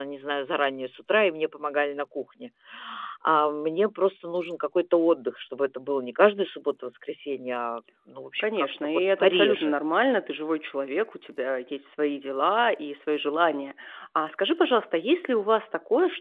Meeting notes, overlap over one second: present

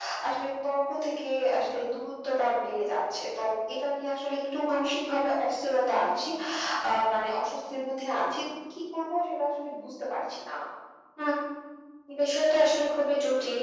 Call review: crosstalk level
none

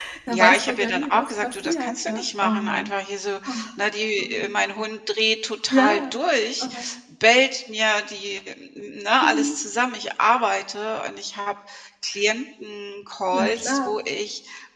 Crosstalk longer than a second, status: present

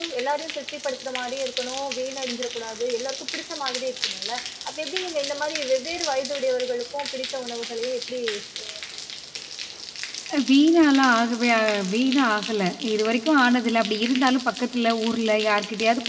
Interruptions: none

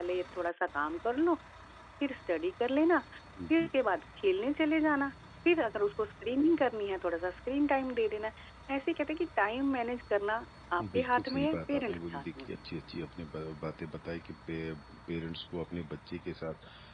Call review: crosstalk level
present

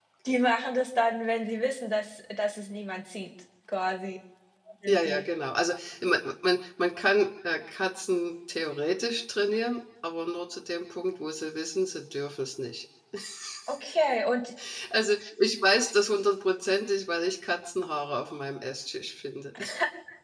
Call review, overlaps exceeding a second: none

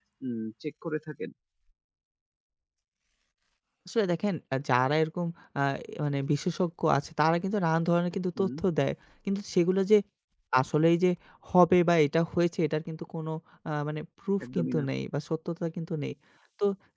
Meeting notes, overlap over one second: none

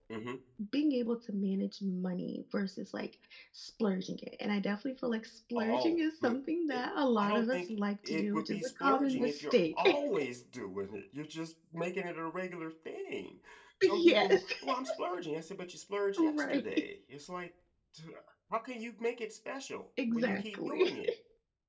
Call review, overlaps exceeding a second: present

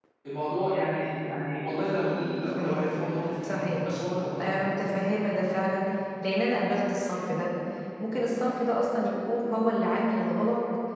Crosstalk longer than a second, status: none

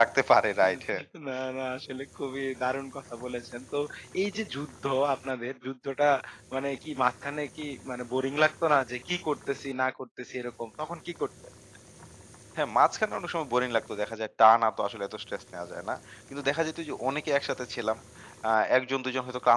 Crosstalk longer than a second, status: none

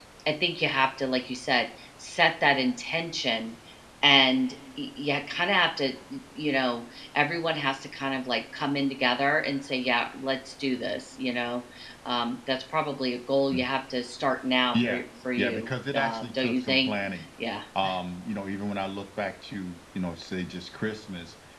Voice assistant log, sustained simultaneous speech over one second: present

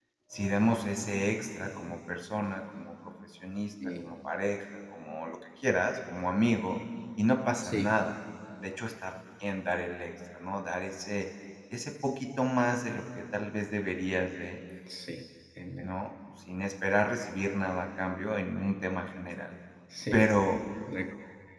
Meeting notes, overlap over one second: none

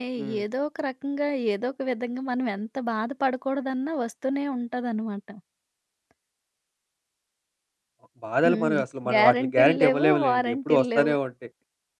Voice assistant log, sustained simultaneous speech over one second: present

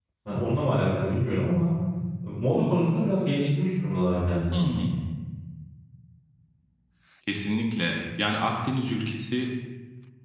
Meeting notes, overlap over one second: none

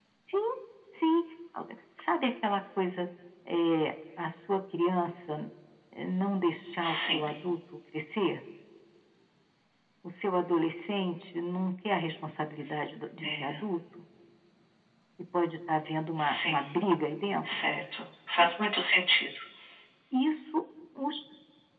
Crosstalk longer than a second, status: none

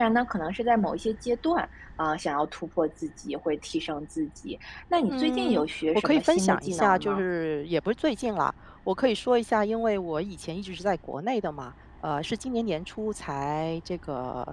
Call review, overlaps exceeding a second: present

